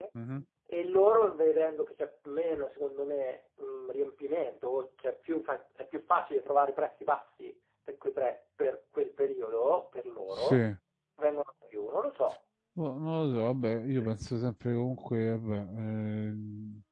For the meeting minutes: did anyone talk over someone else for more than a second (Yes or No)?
No